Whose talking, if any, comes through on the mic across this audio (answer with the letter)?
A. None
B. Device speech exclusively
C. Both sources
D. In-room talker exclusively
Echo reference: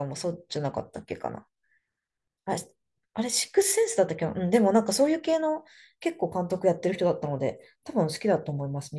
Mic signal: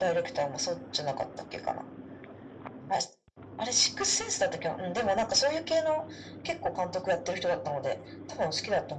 B